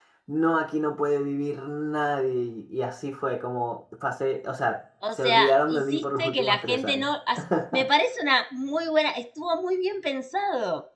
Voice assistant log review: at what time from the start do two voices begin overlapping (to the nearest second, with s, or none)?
5 s